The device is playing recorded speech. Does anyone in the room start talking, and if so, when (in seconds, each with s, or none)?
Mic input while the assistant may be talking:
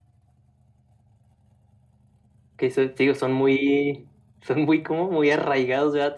2.6 s